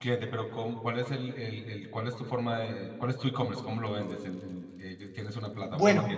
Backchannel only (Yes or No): No